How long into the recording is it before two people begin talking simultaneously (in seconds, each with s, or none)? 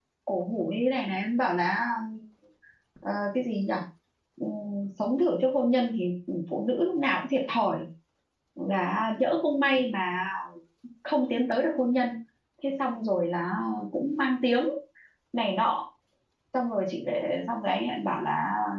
none